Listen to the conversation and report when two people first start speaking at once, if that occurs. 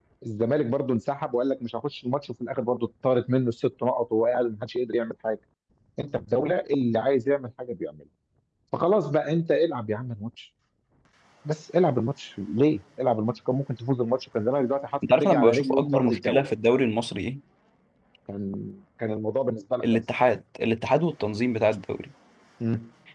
15.1 s

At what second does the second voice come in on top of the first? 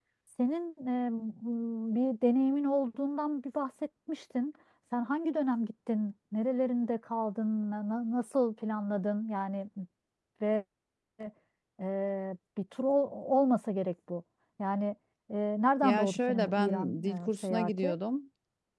15.8 s

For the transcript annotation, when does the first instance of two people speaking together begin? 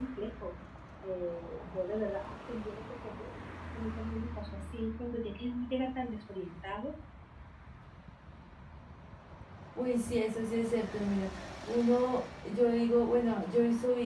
none

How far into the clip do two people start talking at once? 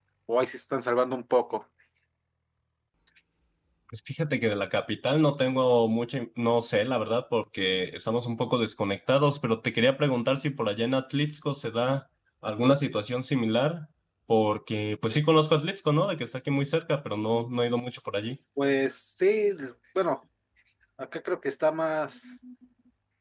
none

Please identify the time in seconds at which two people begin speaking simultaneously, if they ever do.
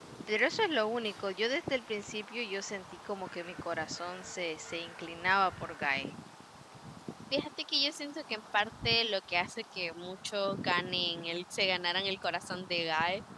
none

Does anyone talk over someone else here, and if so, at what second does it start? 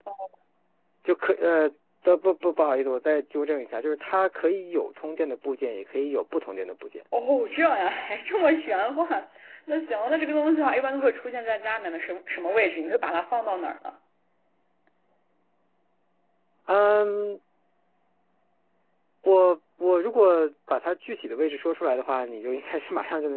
none

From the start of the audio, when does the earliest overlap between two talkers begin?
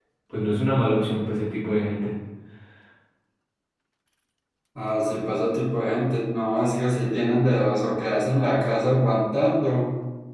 none

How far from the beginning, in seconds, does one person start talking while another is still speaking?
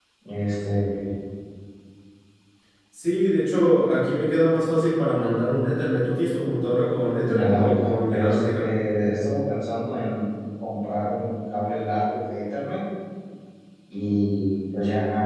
7.2 s

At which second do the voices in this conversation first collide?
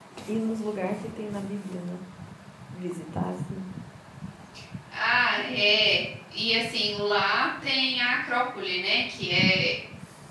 none

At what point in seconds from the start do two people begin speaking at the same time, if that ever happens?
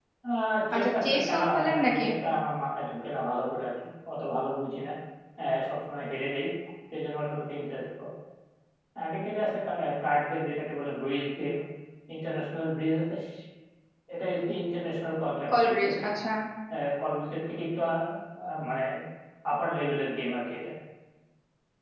0.7 s

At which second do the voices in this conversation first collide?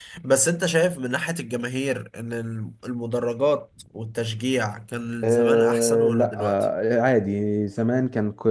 5.2 s

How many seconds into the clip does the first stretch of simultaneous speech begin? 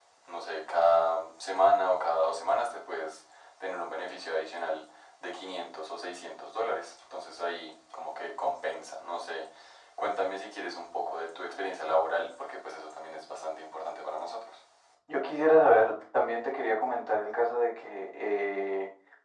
none

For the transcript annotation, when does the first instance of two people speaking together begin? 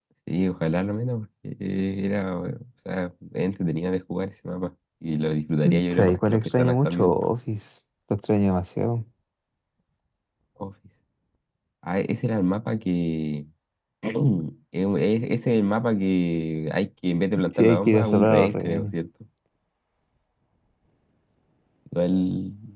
5.9 s

